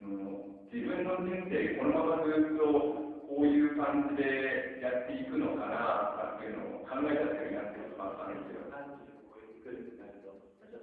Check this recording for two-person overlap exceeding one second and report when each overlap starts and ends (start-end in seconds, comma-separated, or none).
6.9-8.6